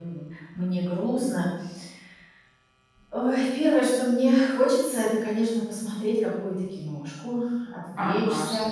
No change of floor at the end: No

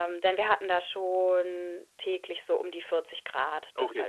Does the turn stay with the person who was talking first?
No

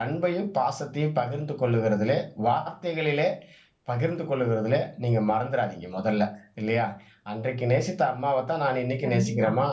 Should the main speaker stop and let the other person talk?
No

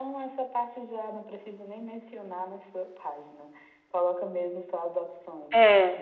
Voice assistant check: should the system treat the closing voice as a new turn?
Yes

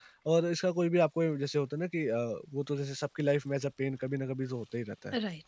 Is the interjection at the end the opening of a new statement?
No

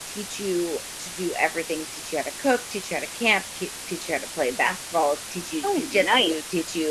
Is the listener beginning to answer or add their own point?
No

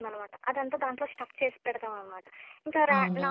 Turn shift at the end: No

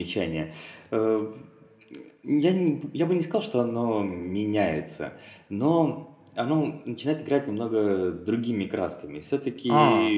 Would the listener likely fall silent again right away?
Yes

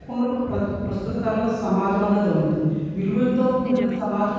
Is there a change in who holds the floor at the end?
No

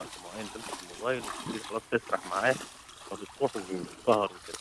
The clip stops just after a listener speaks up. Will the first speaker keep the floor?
Yes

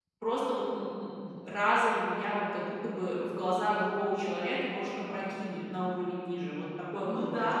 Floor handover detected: Yes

